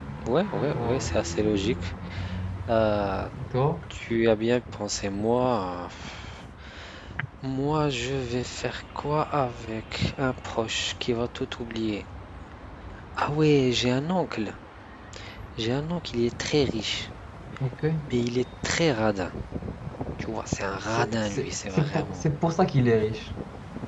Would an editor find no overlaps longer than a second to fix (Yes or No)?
No